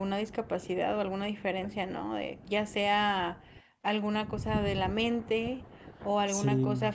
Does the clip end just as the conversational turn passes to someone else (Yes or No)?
No